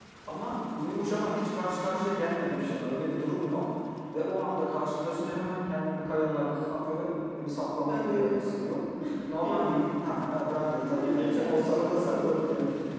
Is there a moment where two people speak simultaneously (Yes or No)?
Yes